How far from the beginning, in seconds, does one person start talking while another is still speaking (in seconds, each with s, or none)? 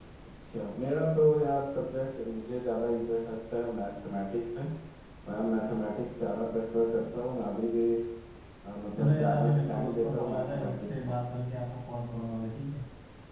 9.0 s